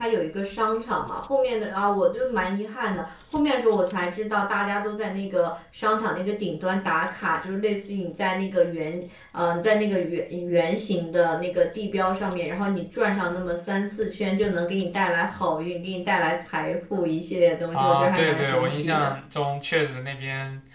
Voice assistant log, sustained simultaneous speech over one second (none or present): present